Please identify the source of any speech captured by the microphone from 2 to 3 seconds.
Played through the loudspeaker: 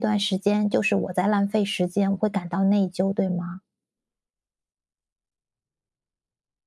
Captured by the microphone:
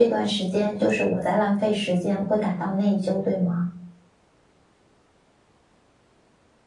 echo only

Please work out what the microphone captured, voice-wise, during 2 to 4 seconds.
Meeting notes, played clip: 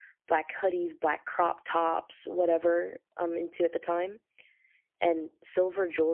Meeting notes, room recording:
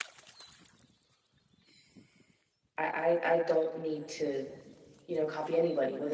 user only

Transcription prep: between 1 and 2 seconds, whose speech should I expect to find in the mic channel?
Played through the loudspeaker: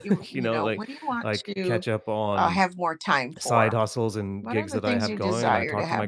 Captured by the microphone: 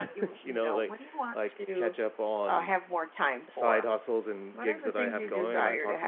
echo only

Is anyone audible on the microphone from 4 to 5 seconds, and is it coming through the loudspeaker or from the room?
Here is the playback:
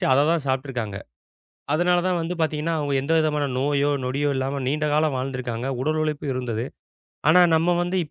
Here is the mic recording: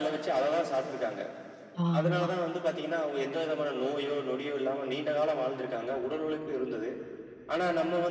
echo only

